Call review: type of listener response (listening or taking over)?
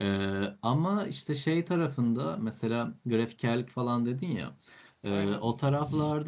listening